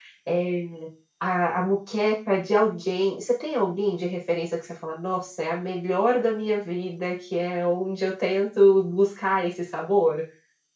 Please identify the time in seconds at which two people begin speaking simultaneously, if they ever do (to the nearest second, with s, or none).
none